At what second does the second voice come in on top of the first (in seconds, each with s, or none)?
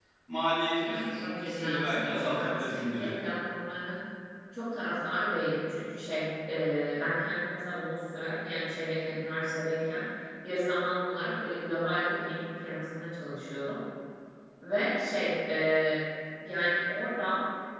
0.8 s